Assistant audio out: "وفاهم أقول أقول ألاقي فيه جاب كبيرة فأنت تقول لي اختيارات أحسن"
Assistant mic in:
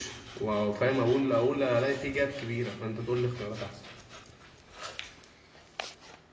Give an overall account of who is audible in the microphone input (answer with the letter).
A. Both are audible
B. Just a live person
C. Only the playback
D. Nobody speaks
C